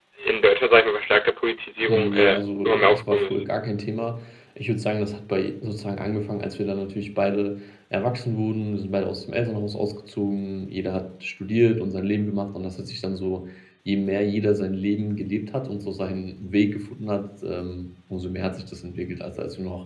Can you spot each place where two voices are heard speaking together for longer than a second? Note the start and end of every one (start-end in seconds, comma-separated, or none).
1.9-3.4